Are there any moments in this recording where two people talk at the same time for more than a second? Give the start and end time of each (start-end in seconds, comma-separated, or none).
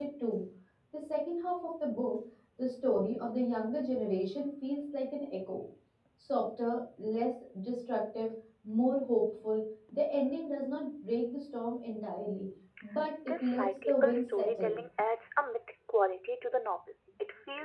13.4-14.8